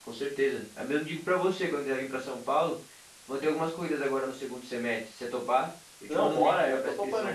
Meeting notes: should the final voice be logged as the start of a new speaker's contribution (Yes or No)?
Yes